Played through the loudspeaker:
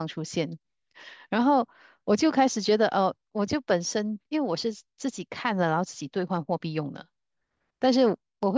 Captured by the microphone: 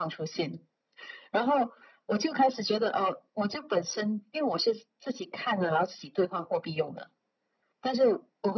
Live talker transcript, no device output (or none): none